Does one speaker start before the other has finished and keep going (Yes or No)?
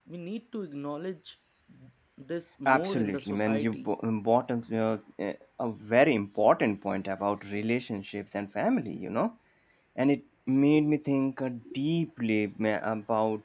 Yes